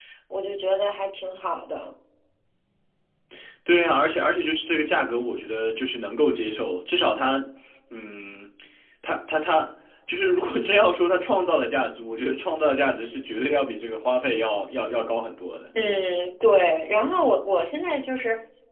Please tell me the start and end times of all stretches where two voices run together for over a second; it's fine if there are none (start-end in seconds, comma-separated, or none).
none